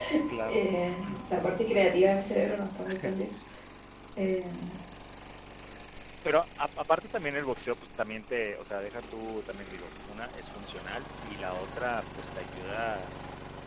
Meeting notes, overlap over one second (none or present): none